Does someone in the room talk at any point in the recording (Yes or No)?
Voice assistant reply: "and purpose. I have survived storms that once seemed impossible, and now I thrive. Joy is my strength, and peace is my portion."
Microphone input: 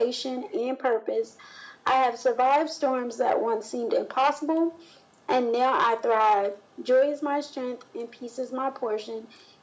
No